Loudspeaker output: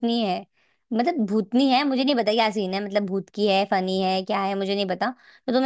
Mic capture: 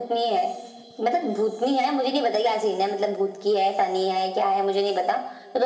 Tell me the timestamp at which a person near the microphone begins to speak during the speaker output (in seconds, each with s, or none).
none